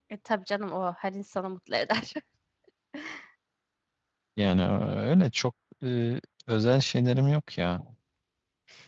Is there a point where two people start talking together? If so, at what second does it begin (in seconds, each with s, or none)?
none